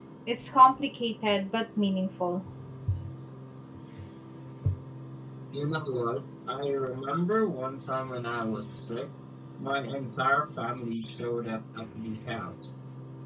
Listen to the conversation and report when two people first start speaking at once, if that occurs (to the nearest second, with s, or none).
none